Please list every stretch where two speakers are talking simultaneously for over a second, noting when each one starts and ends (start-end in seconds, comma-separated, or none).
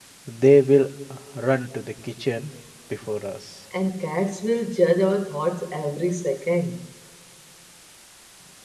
none